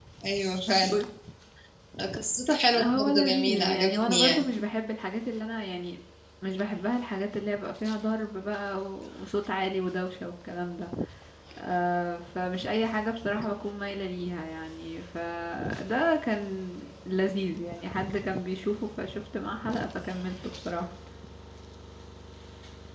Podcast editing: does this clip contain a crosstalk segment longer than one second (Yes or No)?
Yes